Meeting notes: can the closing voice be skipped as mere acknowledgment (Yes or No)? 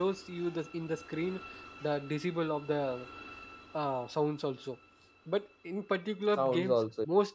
Yes